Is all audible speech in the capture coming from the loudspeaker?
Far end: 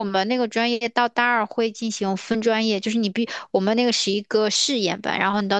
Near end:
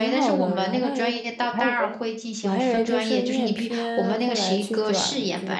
No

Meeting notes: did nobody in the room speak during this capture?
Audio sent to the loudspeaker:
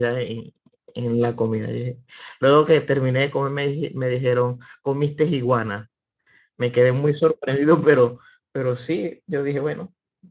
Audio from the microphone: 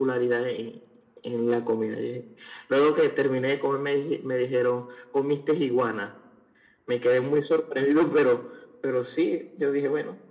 Yes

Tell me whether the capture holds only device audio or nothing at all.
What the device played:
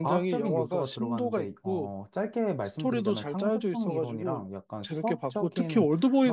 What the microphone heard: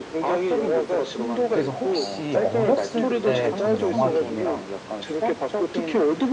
No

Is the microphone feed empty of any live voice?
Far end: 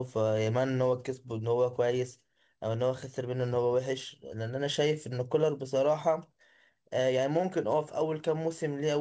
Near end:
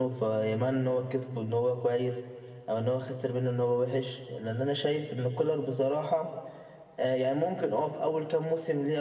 Yes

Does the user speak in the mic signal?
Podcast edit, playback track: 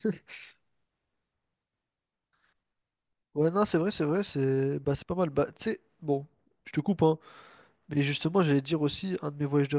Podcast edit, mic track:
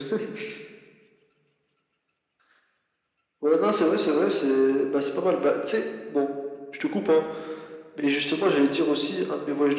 No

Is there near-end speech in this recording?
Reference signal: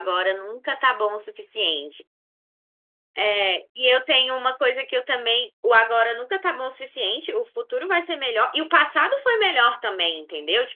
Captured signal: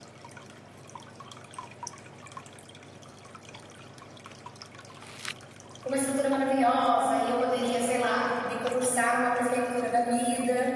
Yes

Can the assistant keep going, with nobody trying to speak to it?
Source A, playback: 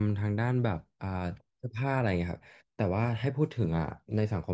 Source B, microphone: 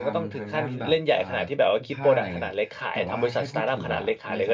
No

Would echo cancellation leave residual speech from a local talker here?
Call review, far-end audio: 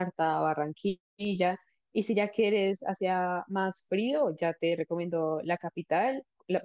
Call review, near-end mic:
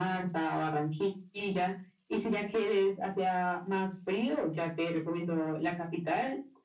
No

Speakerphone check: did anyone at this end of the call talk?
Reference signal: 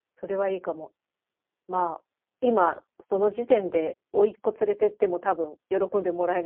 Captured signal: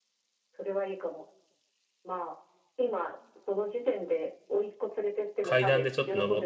Yes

